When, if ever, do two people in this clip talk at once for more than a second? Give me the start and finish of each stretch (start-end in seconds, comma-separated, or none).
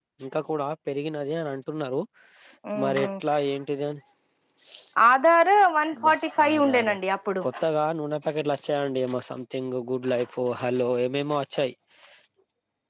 none